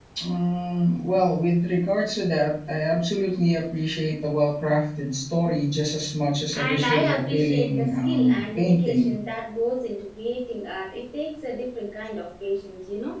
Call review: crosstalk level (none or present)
present